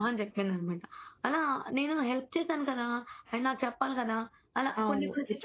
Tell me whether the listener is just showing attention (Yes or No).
No